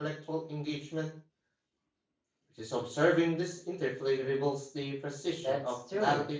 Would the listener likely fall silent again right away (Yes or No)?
No